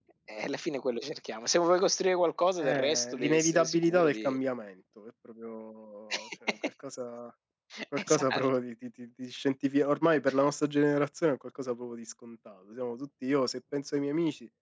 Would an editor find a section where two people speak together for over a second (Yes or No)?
Yes